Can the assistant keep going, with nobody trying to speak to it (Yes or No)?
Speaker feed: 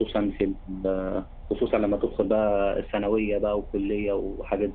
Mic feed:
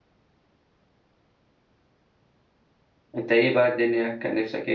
No